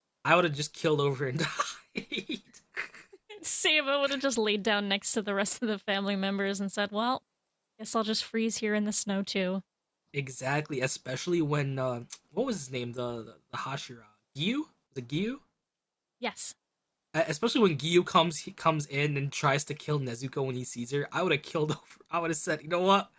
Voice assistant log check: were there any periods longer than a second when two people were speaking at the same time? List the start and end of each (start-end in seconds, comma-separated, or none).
none